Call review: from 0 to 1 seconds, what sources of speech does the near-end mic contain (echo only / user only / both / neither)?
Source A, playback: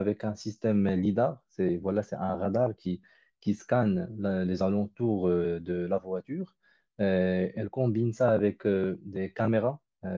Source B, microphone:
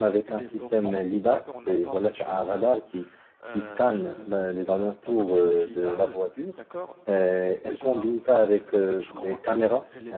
both